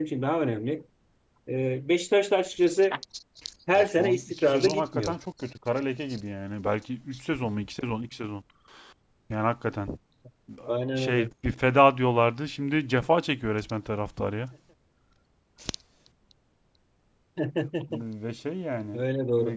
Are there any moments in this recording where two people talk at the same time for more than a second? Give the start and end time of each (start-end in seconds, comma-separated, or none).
3.8-5.2